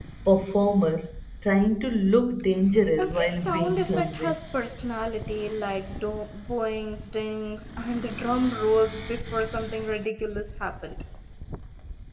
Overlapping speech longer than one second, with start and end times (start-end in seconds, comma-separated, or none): 3.0-4.4